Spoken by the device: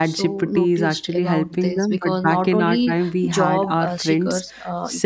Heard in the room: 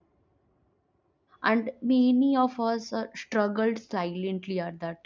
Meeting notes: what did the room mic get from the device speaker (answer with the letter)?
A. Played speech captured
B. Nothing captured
B